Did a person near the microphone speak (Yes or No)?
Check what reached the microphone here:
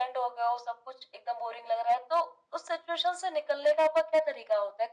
No